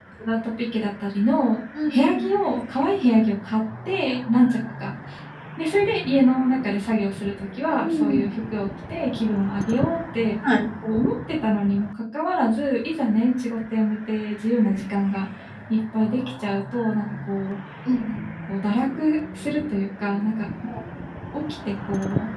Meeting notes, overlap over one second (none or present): none